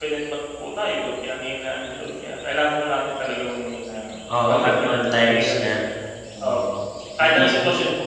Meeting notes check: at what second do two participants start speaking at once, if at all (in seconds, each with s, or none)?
4.4 s